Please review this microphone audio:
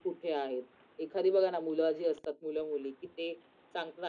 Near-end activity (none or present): none